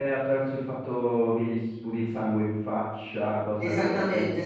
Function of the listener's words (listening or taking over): taking over